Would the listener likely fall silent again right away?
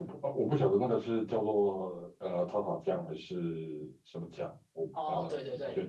No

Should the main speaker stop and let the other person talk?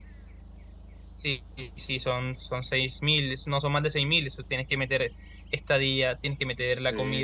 No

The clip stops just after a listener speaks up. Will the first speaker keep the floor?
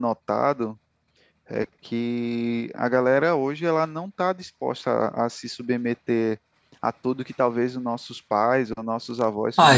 No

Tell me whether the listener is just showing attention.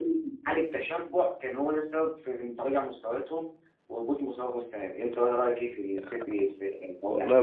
No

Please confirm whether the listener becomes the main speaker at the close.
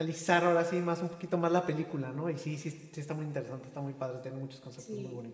Yes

